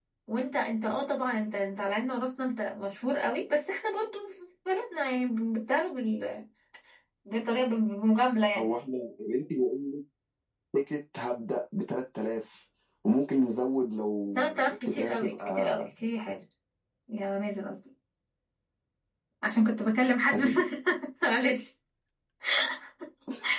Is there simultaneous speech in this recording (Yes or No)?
Yes